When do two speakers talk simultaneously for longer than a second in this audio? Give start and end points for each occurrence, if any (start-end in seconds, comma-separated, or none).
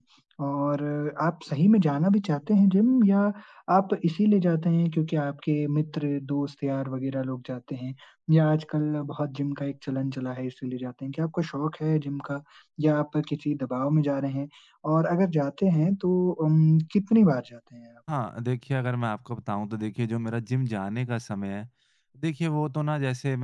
none